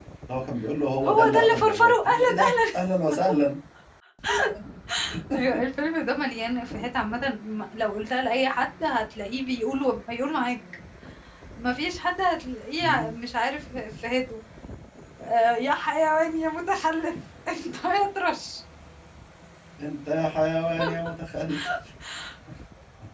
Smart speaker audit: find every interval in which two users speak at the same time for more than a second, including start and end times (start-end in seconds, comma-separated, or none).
1.1-2.5